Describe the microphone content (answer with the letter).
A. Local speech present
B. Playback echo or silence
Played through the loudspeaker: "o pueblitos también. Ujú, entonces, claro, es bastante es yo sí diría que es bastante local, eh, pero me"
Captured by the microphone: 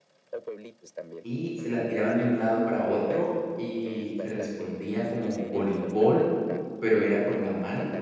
A